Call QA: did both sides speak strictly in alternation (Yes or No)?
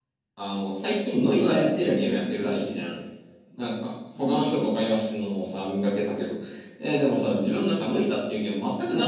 No